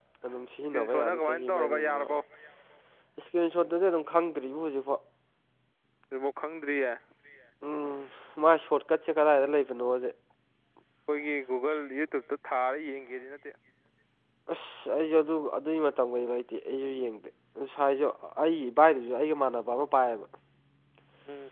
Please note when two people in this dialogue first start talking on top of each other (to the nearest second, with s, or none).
1 s